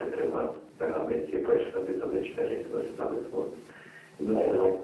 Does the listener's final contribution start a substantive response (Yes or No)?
No